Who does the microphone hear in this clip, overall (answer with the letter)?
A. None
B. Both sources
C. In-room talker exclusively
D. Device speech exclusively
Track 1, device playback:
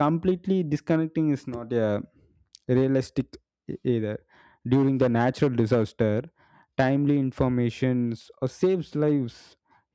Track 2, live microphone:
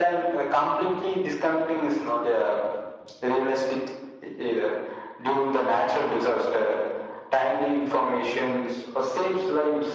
D